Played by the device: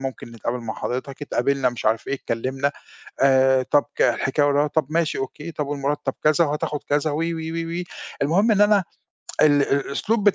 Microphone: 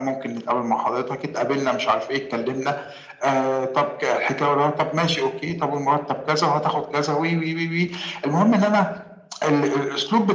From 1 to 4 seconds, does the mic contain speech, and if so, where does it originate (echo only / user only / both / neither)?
echo only